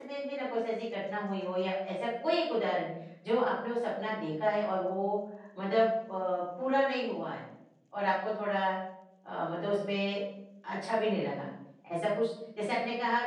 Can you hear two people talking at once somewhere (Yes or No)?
No